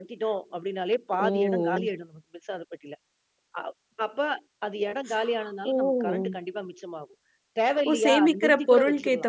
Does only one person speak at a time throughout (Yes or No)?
No